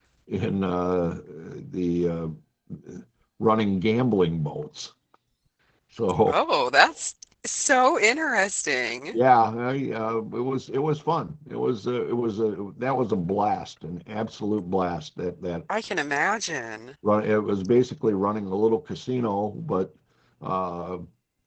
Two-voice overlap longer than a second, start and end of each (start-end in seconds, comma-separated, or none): none